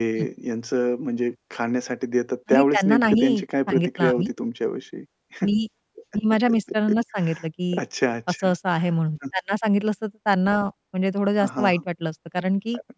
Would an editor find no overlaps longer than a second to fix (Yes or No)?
No